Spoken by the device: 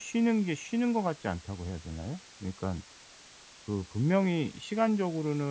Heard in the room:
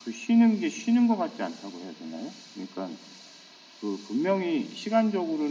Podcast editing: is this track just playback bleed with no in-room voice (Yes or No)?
Yes